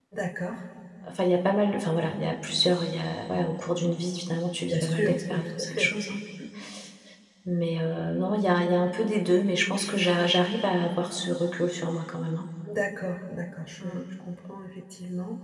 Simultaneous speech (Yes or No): Yes